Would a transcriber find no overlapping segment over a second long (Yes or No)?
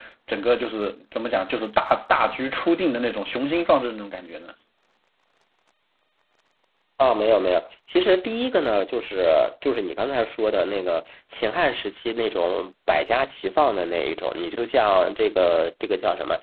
Yes